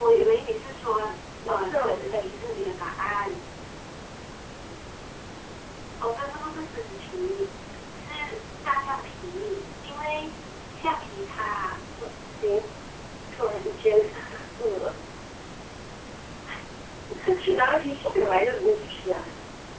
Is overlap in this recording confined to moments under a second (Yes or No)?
No